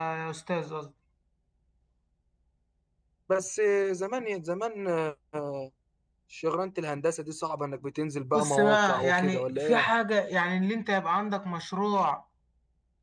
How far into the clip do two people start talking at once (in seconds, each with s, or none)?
8.3 s